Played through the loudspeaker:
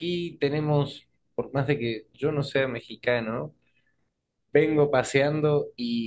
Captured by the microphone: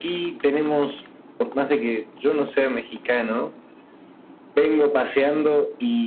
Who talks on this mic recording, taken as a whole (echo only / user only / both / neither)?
echo only